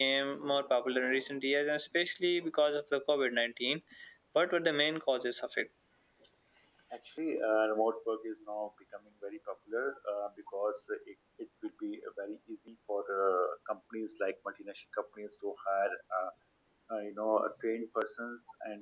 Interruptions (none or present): none